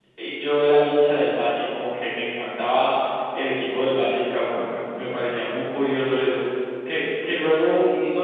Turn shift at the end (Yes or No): No